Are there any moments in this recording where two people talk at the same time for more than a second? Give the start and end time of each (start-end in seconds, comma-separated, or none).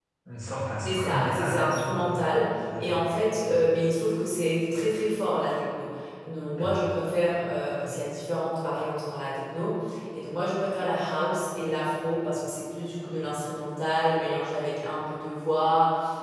0.8-2.1